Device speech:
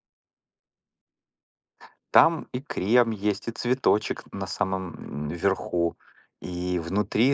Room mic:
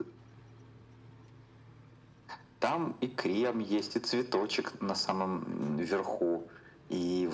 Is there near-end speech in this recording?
No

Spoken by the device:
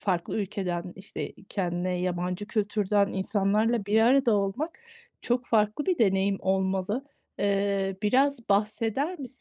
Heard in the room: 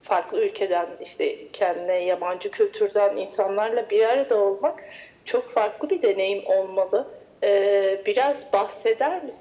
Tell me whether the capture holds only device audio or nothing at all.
Yes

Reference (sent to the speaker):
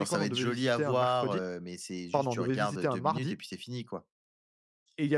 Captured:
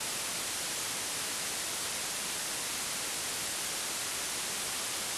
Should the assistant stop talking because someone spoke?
No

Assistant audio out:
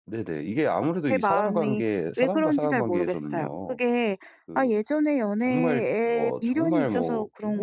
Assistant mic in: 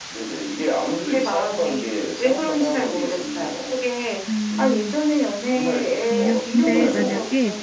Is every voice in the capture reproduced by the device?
No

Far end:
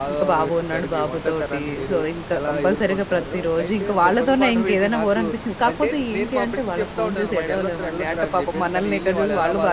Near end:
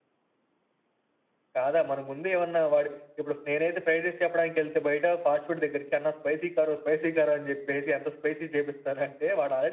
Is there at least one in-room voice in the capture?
Yes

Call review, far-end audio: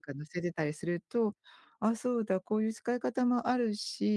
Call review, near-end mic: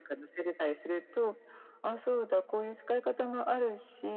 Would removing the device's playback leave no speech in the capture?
Yes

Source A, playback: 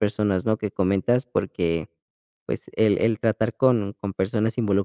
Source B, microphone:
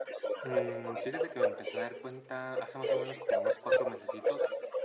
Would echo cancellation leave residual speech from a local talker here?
Yes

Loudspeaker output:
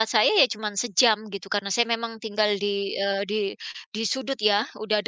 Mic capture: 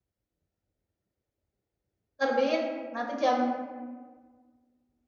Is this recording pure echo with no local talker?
No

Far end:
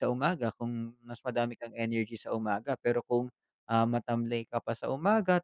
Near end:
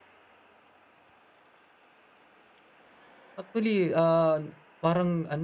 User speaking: Yes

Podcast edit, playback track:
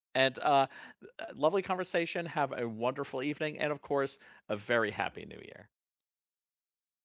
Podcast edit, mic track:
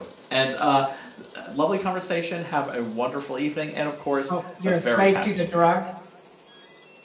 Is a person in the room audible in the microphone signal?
Yes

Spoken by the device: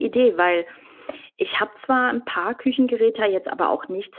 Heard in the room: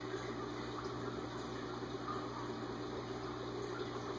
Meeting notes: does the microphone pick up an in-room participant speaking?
No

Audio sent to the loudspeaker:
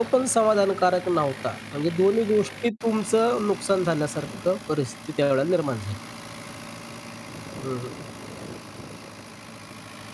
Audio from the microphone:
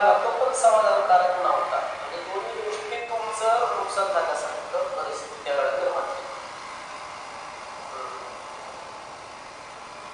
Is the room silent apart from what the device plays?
Yes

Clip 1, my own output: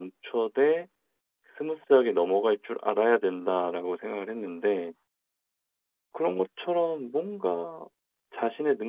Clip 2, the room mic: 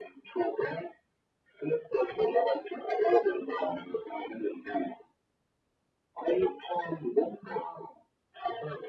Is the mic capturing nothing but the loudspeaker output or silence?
Yes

